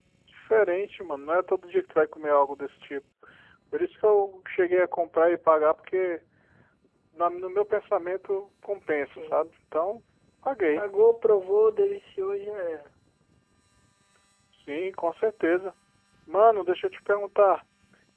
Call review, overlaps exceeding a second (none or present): none